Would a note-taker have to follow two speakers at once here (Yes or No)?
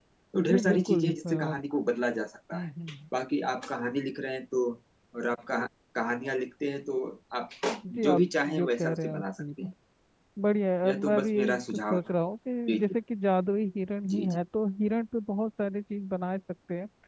Yes